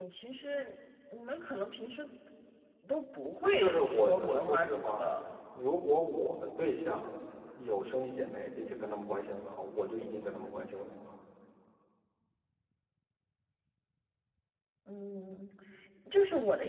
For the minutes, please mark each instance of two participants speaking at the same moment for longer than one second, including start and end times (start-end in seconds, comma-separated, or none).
3.6-5.1